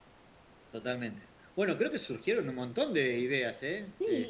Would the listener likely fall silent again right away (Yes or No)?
No